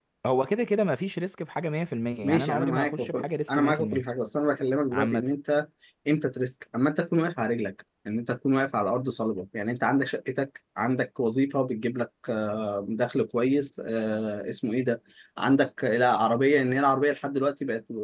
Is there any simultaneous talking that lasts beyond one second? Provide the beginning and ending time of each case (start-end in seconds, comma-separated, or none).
2.2-4.0